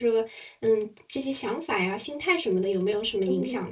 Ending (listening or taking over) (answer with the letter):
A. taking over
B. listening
A